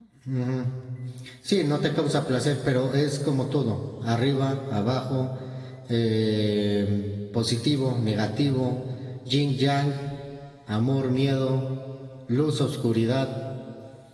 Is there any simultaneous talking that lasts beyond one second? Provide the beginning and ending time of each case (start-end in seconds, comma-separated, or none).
none